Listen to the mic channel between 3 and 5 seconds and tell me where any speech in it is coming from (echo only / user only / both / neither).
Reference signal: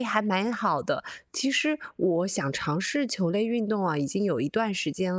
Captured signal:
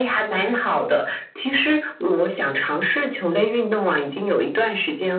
echo only